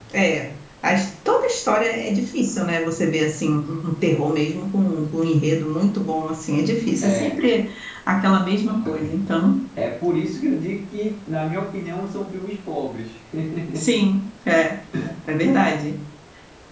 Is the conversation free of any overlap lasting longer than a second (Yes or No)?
Yes